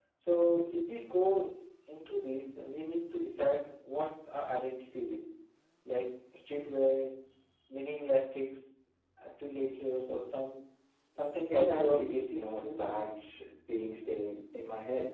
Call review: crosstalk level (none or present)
present